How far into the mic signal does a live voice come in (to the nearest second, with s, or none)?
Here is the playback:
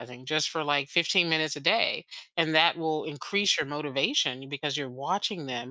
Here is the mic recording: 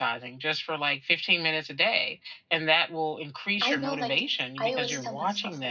4 s